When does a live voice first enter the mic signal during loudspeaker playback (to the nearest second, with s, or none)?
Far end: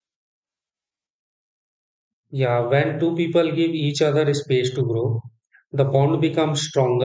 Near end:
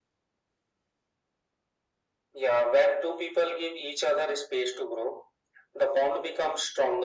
none